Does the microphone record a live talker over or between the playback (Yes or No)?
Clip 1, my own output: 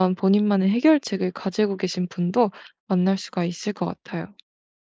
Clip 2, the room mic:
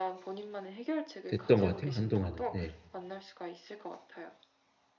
Yes